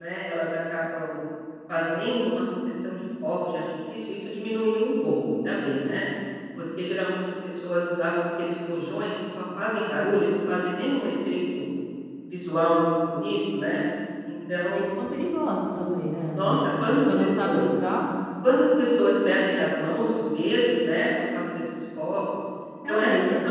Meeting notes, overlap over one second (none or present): present